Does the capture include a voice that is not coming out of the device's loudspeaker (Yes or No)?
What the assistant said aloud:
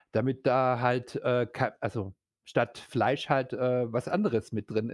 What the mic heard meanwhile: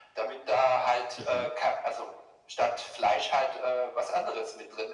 Yes